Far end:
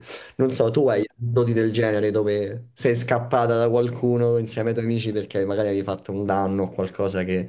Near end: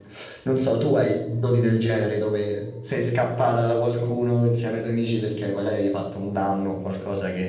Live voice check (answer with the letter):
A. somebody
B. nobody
B